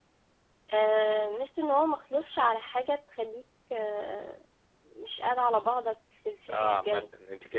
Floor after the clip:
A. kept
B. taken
B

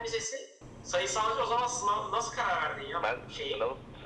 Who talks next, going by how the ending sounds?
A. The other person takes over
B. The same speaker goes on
A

